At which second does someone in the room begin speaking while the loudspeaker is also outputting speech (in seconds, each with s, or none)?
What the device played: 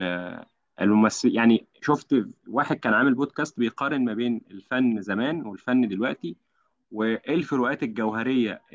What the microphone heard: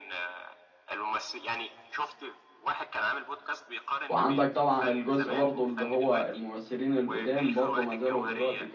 4.1 s